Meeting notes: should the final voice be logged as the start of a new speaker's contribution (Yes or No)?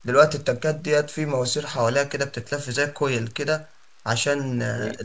No